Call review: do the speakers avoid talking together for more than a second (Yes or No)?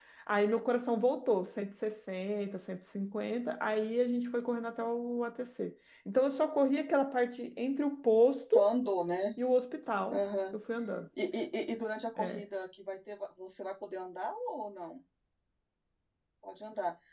Yes